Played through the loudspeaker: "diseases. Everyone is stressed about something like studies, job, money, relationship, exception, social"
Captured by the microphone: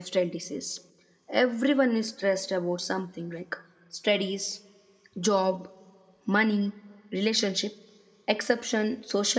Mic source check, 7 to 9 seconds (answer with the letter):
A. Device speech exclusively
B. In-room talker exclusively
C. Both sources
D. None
A